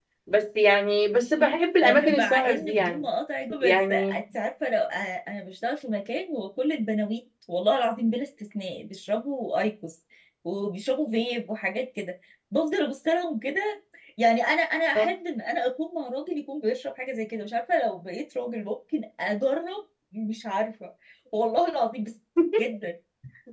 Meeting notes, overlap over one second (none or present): present